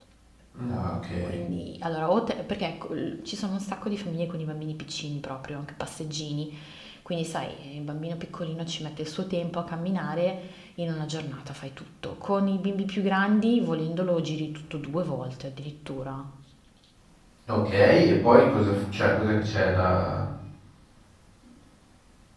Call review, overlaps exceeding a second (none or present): none